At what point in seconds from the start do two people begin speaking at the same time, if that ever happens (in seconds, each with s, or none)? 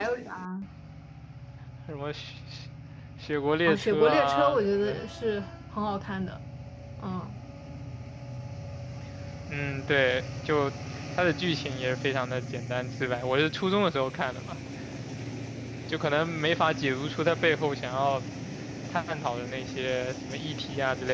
3.7 s